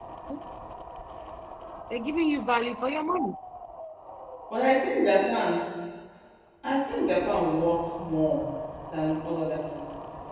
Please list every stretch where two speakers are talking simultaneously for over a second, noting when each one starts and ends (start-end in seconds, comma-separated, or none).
none